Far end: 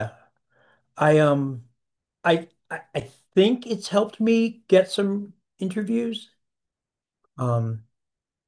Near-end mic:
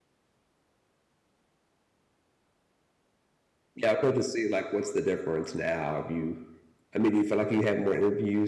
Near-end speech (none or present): present